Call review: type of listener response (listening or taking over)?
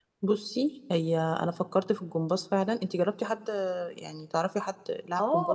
taking over